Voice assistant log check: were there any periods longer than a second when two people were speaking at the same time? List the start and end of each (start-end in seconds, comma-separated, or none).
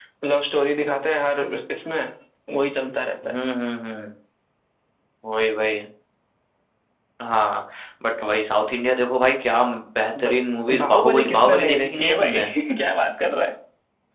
10.8-12.4